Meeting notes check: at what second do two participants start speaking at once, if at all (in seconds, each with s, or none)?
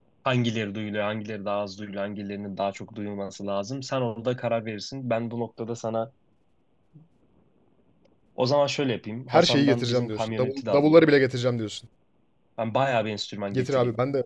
9.3 s